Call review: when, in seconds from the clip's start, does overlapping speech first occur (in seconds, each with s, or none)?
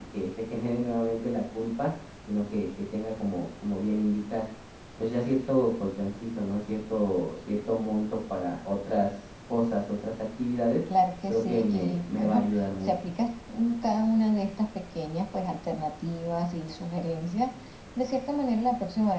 11.3 s